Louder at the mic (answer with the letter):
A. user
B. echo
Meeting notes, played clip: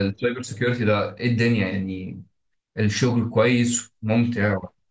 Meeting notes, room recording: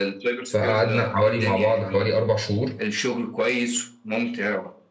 A